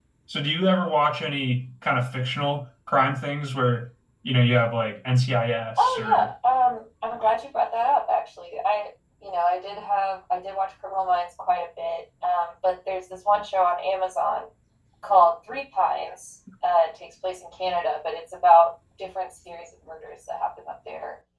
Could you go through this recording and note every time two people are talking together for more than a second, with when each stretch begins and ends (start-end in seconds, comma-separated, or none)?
none